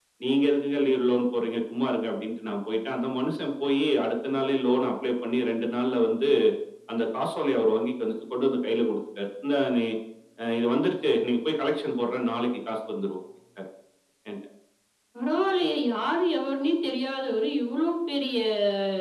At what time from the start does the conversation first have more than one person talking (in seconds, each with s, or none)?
none